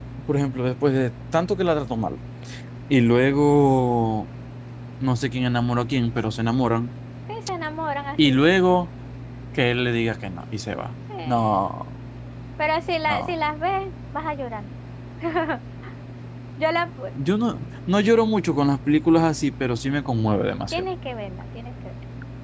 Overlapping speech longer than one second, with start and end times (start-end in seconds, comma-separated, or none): none